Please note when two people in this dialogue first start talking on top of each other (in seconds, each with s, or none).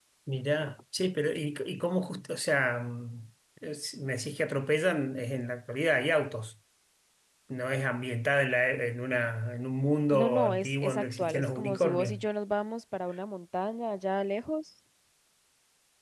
10.1 s